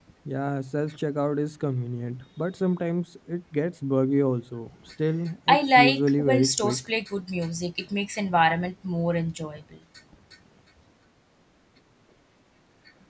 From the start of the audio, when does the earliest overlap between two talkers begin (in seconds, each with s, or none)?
5.5 s